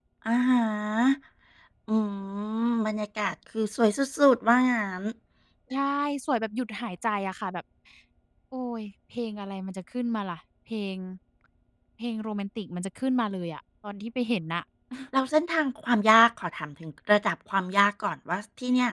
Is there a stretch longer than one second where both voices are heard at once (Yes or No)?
No